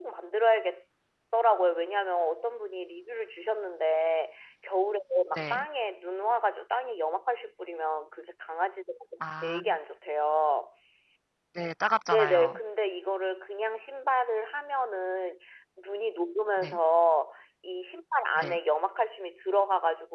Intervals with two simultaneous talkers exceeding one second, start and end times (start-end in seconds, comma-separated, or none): none